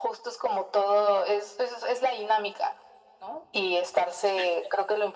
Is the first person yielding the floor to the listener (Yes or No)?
No